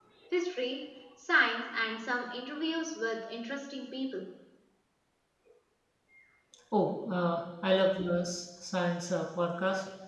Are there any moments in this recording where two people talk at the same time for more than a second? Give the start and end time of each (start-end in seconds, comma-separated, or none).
none